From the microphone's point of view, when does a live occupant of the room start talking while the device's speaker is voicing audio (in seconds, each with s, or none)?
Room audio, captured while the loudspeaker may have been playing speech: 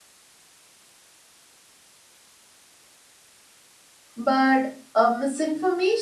4.2 s